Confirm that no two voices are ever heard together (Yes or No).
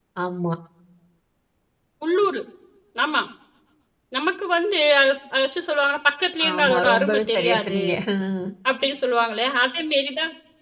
No